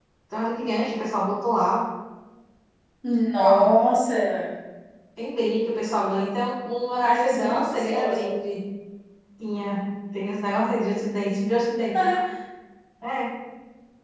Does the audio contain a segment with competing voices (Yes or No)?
Yes